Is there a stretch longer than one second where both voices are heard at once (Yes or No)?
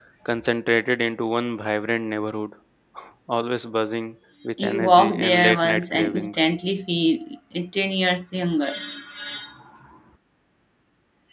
Yes